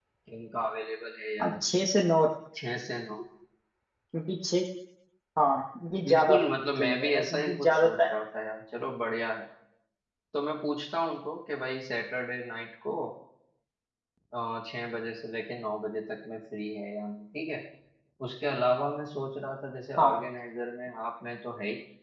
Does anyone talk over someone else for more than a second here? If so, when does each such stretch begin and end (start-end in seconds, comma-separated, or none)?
6.8-8.1